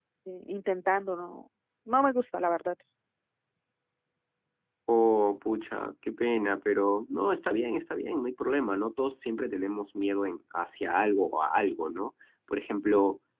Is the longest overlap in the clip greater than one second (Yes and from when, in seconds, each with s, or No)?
No